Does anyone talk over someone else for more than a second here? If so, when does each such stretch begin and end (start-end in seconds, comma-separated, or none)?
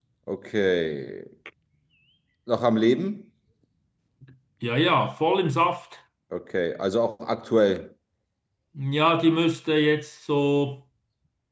none